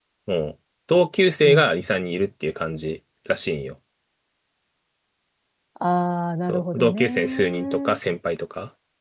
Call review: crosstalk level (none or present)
present